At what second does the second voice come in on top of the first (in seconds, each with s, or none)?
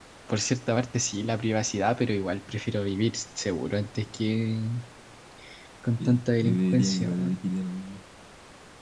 6.0 s